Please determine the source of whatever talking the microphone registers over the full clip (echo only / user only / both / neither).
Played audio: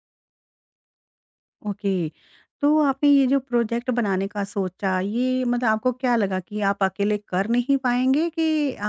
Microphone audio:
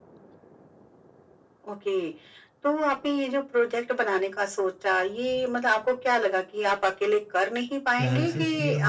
both